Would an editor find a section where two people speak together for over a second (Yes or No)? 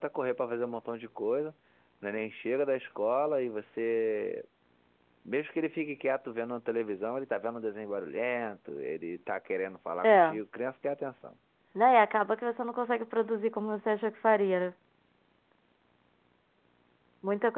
No